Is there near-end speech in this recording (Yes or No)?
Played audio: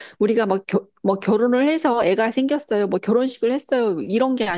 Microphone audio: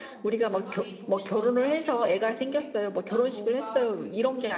Yes